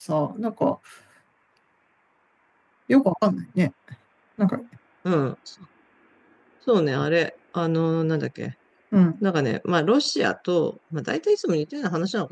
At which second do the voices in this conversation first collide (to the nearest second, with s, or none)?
none